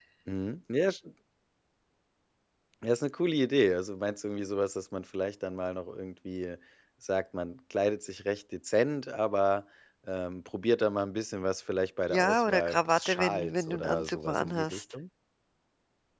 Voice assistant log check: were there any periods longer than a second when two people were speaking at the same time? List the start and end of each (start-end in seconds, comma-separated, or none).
12.1-14.8